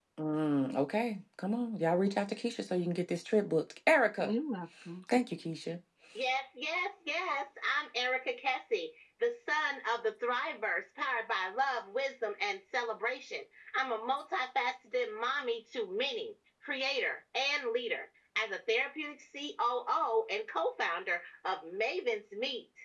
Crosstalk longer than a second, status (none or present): none